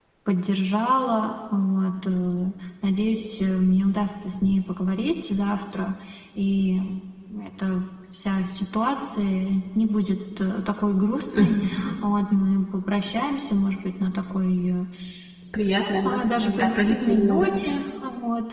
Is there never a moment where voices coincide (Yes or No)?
No